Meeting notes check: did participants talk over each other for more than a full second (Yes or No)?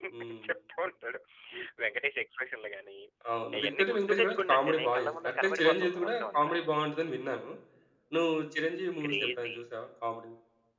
Yes